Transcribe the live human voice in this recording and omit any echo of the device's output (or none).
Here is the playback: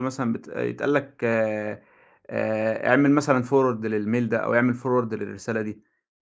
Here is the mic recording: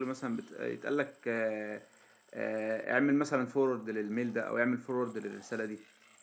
none